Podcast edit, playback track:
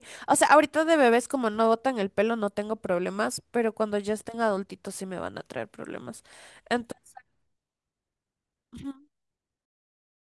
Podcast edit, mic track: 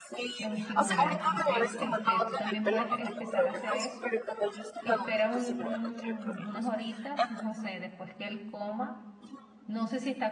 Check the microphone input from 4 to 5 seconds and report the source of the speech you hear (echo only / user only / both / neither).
both